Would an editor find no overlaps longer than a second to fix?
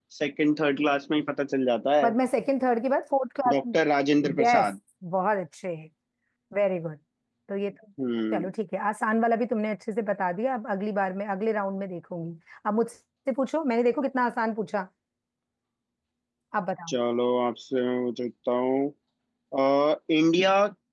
Yes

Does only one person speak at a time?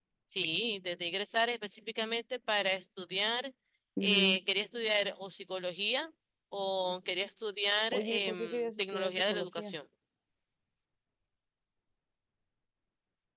No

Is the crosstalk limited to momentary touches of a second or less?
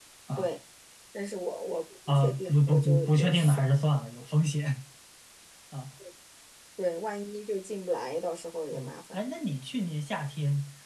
No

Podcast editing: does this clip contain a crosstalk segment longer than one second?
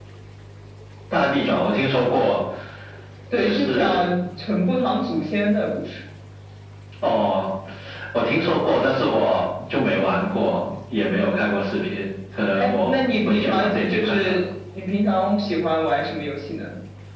Yes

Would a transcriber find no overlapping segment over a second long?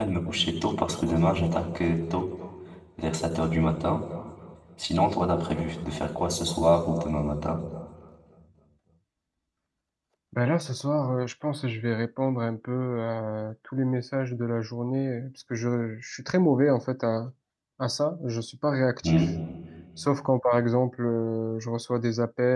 Yes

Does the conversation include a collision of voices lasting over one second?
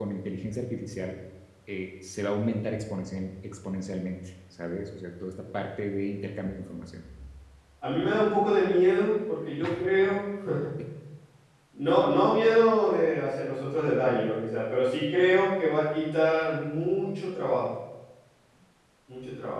No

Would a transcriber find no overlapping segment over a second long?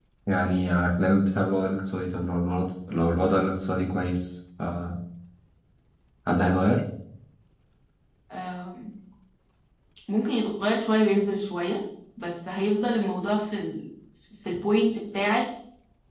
Yes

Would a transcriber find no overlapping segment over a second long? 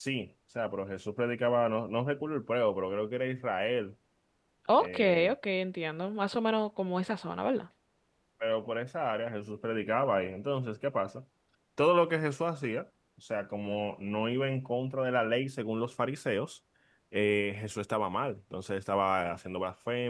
Yes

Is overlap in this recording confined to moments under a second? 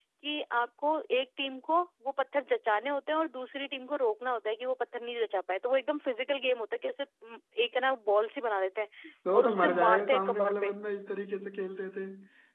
No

